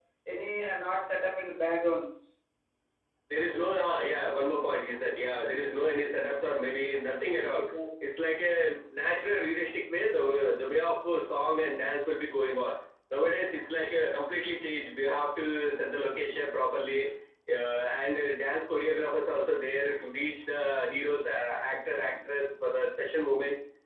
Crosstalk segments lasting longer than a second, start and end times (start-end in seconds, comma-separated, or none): none